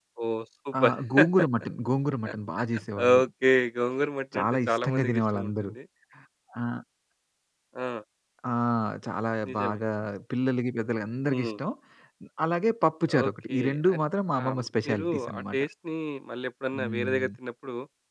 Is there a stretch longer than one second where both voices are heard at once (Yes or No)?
Yes